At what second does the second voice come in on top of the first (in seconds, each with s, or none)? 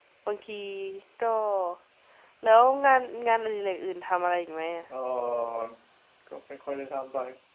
none